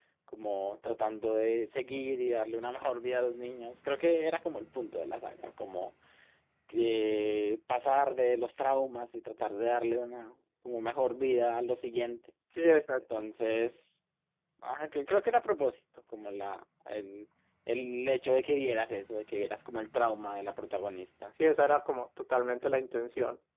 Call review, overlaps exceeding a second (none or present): none